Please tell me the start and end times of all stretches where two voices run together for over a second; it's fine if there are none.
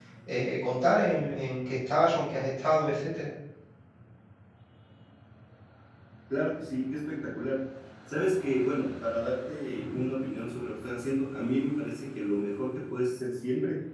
none

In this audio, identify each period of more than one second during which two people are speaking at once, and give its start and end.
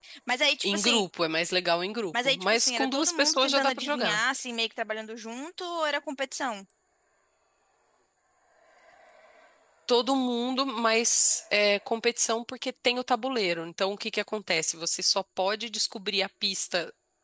2.2-4.2

